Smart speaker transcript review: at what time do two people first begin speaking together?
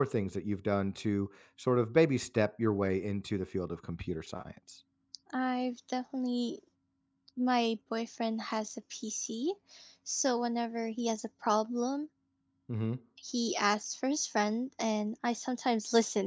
none

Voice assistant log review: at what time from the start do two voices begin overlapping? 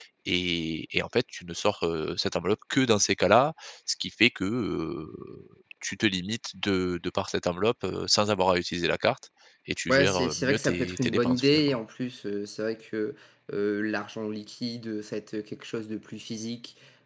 10 s

